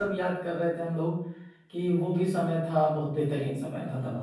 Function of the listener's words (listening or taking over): taking over